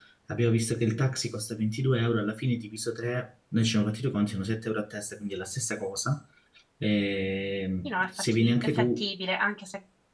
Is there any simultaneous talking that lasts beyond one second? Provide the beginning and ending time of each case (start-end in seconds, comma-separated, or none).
7.8-9.1